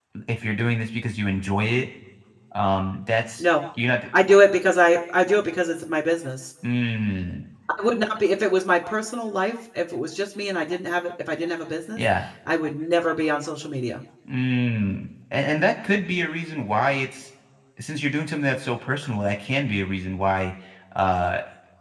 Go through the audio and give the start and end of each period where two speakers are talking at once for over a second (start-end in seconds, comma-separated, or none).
none